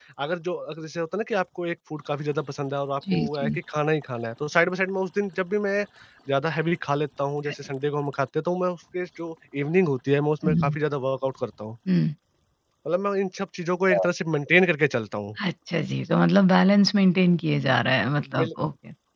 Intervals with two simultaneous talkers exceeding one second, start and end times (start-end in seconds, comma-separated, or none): none